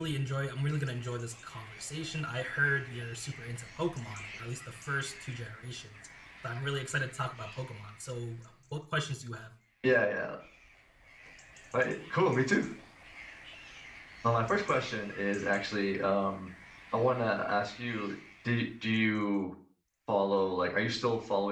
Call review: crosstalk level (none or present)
none